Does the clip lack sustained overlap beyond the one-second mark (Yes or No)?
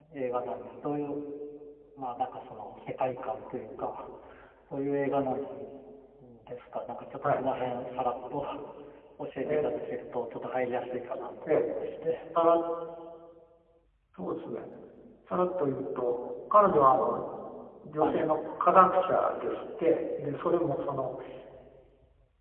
Yes